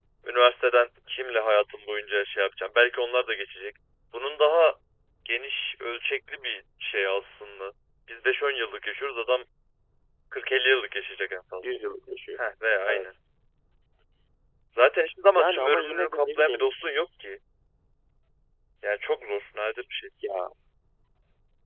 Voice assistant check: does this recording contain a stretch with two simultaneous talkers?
Yes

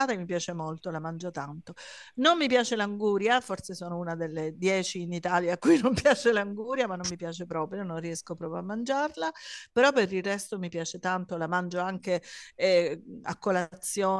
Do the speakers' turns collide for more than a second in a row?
No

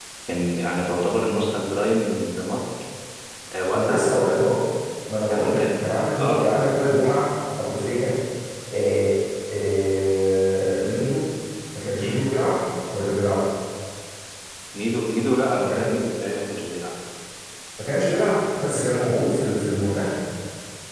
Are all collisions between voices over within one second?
Yes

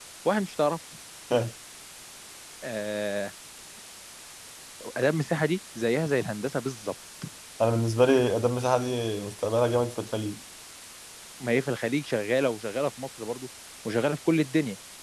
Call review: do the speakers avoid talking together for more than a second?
Yes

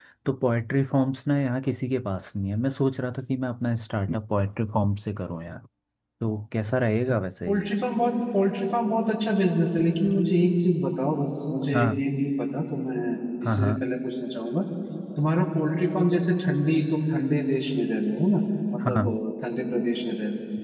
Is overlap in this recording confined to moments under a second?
Yes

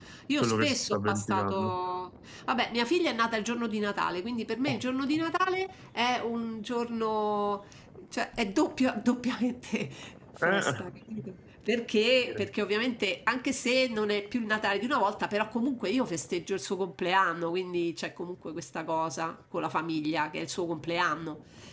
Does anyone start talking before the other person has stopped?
Yes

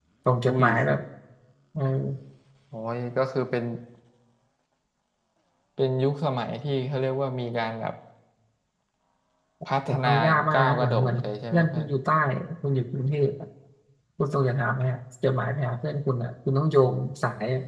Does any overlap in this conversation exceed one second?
Yes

